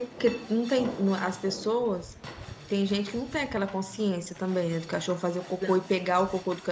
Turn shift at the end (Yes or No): No